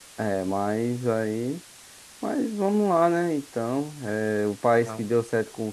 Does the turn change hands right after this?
No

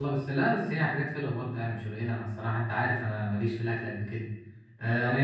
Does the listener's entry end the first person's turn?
No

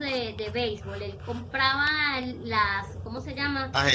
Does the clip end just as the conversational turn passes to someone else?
No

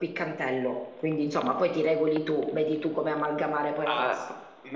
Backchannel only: No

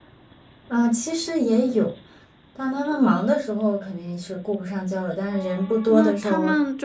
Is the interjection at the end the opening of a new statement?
Yes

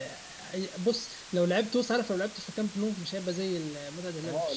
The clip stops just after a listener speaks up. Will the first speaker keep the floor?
No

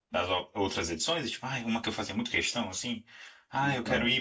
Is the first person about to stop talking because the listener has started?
No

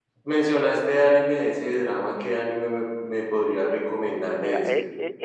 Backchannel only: No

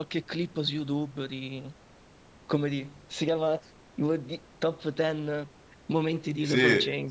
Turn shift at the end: Yes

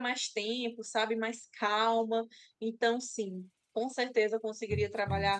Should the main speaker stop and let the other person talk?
No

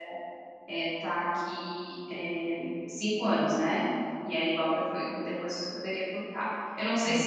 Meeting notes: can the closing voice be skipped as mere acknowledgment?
No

